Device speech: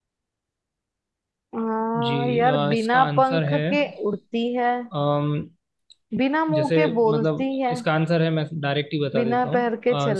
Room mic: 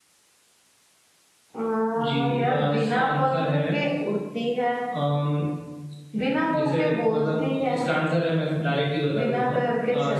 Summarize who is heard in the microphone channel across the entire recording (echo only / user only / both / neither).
echo only